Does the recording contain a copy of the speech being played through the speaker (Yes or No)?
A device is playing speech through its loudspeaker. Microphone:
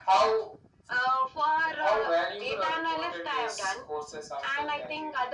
Yes